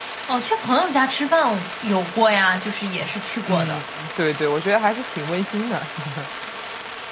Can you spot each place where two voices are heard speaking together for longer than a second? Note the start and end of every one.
none

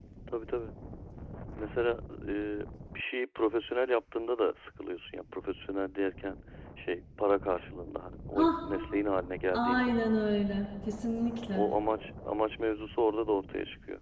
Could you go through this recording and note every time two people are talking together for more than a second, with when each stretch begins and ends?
none

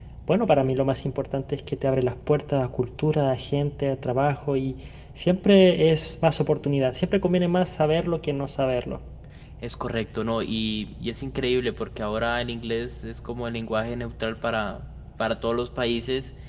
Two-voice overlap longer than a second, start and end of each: none

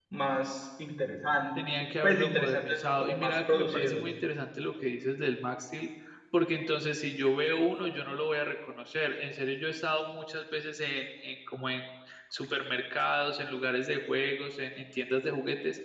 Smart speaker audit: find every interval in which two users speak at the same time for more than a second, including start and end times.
1.8-4.0

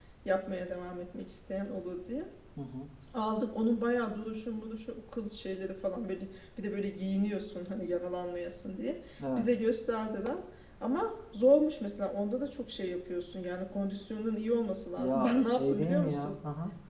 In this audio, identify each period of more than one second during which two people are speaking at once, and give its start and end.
15.0-16.3

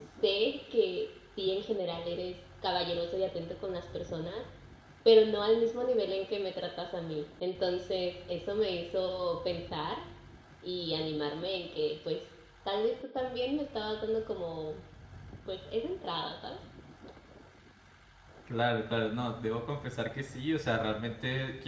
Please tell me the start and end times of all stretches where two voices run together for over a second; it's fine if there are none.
none

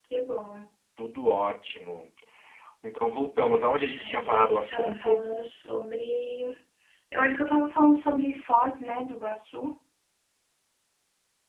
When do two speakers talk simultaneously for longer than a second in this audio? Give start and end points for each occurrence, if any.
4.0-5.3

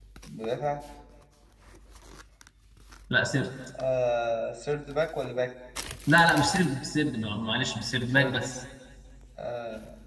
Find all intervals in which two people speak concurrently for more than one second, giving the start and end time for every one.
none

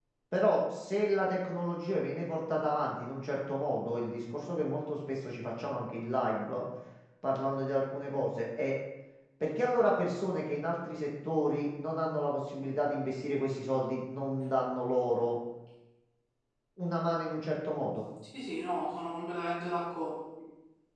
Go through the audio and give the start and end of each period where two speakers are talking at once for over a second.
none

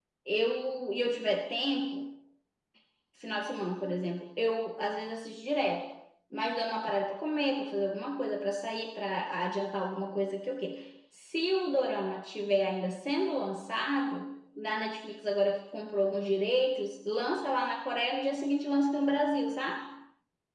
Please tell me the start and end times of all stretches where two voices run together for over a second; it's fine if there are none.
none

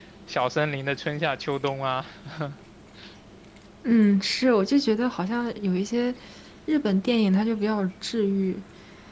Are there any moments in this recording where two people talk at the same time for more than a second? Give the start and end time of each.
none

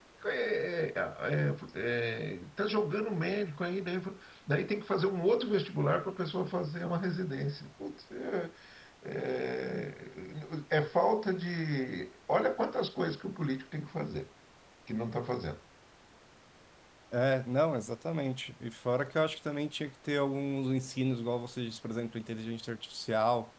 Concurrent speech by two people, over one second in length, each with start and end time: none

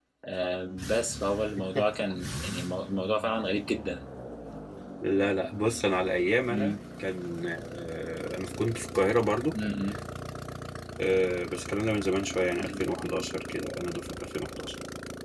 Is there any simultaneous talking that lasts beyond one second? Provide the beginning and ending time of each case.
none

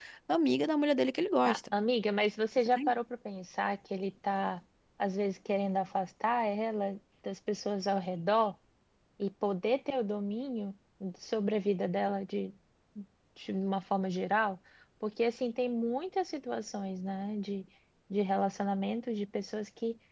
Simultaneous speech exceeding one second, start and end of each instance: none

